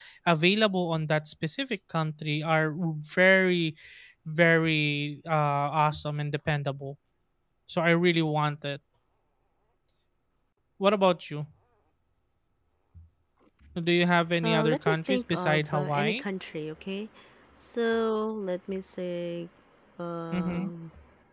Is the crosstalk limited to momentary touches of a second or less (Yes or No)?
No